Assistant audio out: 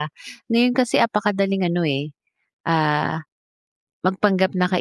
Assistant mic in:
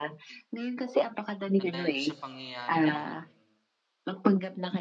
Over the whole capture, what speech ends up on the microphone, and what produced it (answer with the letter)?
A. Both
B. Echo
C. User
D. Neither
A